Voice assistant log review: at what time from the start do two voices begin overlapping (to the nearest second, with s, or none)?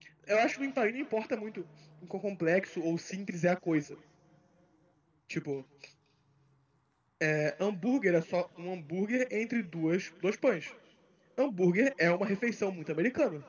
none